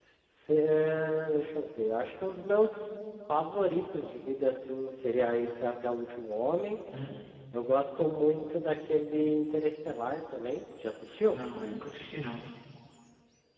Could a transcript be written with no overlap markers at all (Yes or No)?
Yes